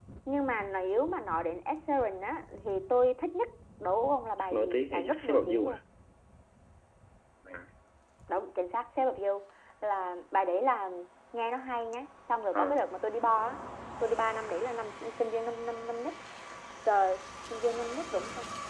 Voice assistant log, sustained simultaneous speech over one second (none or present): present